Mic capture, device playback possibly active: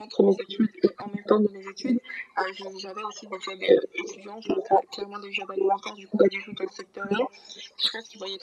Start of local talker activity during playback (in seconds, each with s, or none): none